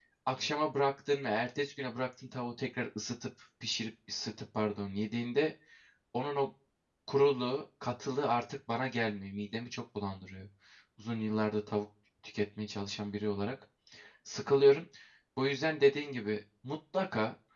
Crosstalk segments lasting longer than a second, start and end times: none

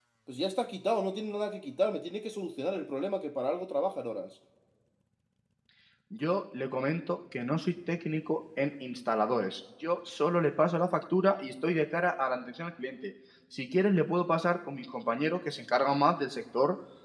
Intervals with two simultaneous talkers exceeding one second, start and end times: none

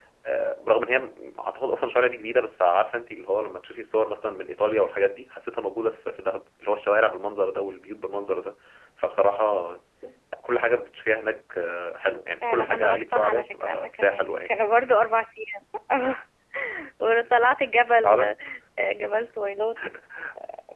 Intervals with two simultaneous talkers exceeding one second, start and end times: 12.5-14.5

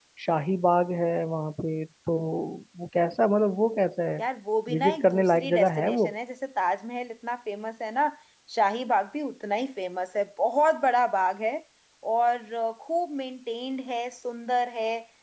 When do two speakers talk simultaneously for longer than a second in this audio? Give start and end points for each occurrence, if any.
4.7-6.0

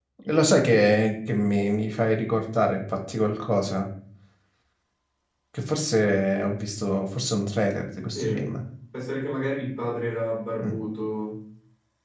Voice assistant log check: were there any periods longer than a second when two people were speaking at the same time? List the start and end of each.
none

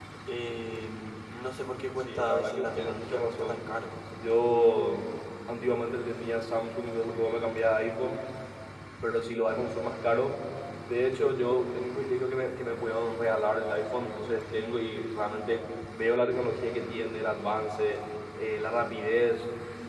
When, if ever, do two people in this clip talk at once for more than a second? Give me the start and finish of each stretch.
2.0-3.7

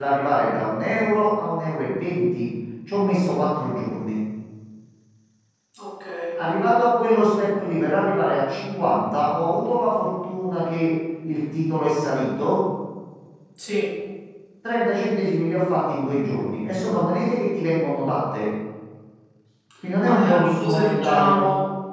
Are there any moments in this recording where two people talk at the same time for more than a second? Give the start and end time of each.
20.0-21.4

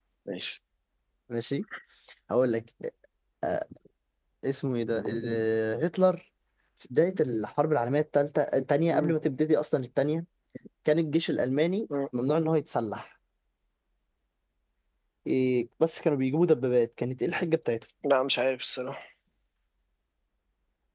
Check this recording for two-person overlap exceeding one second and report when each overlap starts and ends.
none

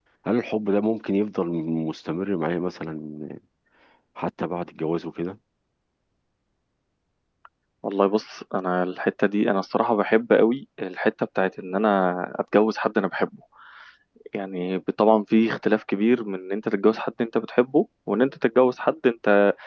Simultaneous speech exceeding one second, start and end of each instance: none

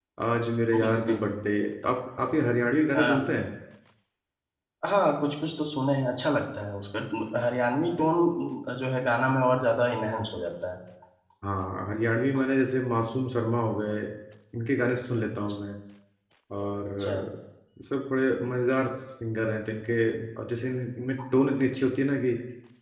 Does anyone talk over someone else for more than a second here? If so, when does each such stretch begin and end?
none

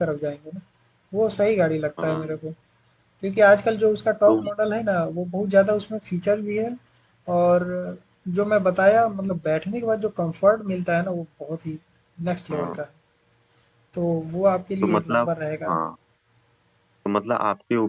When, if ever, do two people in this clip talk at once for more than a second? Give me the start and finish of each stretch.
none

